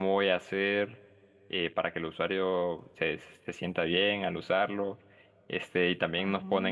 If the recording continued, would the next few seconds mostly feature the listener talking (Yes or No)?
No